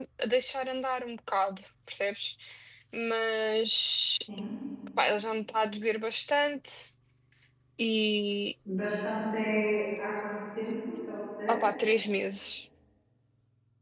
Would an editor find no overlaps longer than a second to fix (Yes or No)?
Yes